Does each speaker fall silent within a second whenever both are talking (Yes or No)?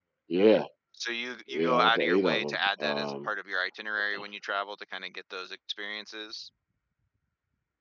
No